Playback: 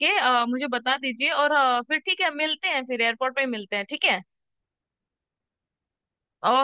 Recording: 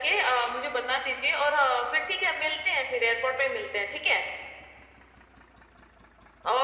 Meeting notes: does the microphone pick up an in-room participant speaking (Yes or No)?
No